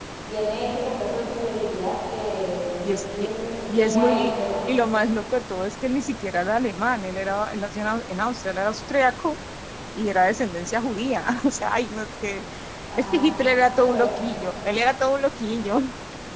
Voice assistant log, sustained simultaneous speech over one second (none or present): present